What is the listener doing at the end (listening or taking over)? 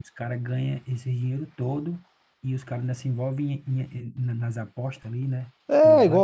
taking over